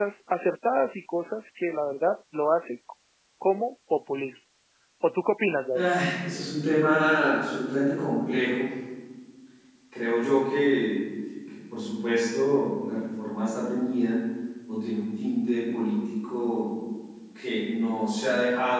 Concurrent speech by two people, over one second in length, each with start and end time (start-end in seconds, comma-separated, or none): none